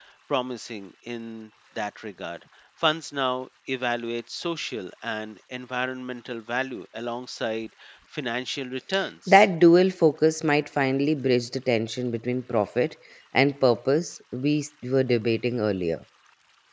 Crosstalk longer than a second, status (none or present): none